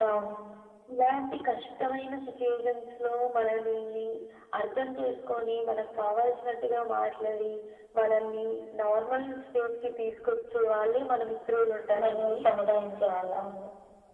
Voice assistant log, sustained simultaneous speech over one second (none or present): none